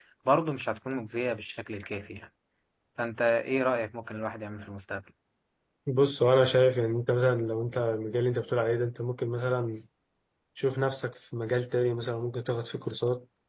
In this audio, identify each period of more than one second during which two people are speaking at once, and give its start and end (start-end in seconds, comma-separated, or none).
none